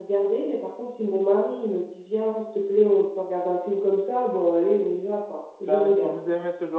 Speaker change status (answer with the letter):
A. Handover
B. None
A